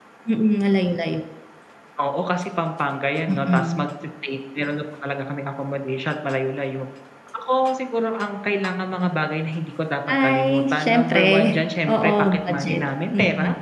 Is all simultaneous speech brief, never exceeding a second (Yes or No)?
No